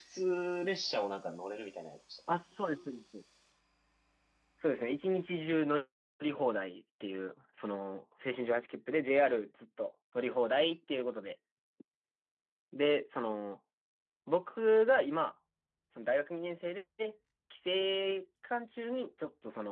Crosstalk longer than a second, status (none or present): none